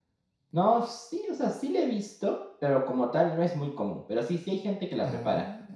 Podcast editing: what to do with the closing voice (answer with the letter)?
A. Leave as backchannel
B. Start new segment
A